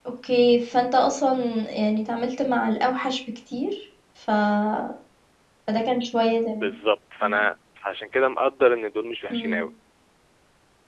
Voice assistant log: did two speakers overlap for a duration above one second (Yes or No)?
No